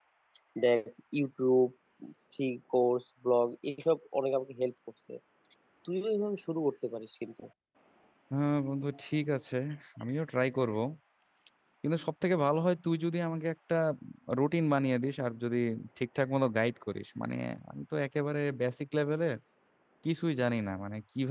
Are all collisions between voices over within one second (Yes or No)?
Yes